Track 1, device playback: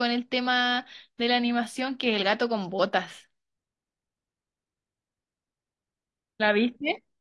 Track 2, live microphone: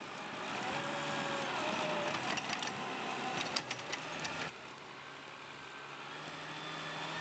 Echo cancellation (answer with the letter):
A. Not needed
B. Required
A